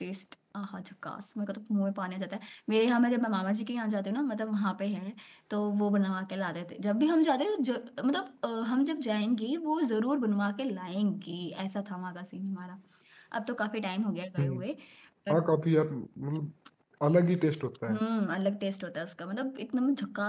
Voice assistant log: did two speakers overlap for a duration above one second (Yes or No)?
No